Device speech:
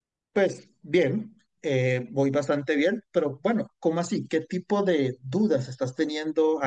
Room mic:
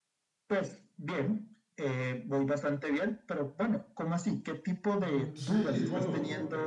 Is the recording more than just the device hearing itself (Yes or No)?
Yes